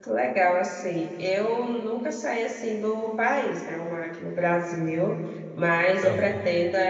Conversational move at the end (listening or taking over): listening